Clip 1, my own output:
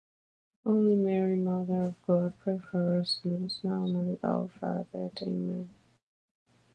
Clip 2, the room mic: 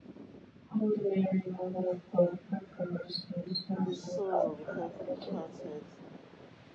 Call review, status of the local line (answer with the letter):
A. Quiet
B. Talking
B